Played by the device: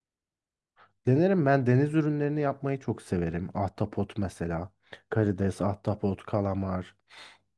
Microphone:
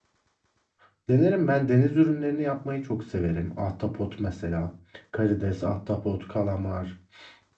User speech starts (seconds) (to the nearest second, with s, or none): none